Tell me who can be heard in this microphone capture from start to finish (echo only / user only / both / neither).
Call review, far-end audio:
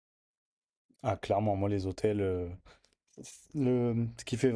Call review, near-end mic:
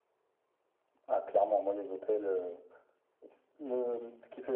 echo only